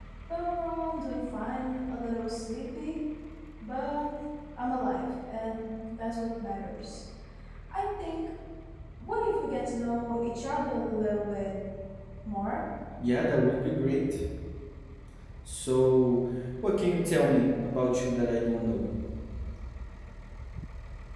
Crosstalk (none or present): none